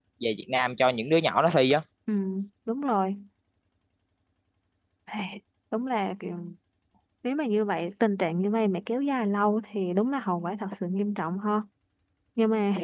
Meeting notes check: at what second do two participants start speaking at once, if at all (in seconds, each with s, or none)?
none